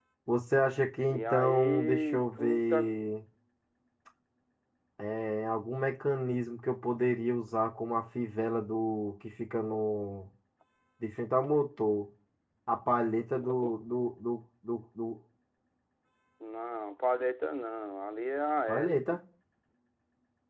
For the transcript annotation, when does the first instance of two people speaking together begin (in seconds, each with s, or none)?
1.1 s